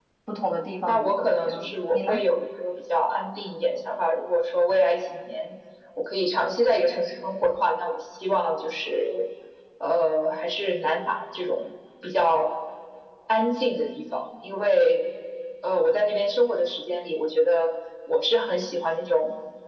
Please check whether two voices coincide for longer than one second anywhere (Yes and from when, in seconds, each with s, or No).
Yes, from 0.9 s